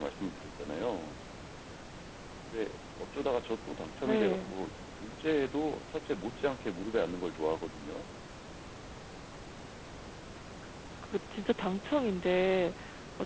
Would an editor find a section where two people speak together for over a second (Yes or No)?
No